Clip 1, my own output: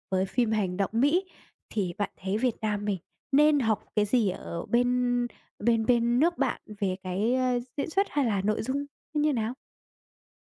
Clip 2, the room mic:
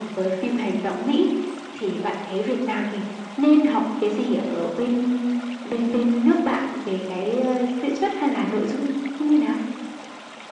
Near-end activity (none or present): none